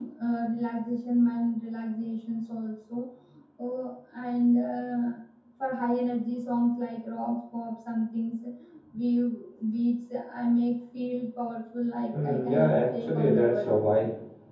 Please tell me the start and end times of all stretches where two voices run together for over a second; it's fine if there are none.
12.2-13.7

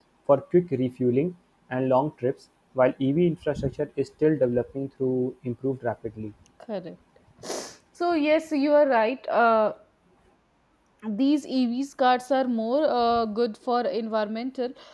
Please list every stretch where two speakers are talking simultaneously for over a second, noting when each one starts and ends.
none

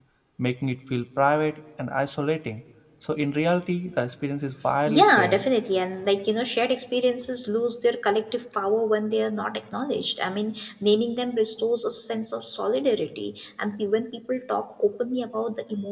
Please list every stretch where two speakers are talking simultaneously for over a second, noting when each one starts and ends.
none

